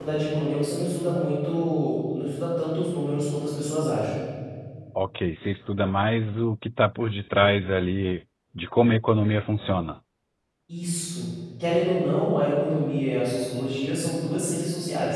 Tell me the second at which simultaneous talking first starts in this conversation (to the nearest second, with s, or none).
none